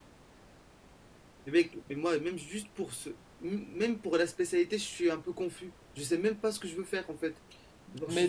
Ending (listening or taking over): taking over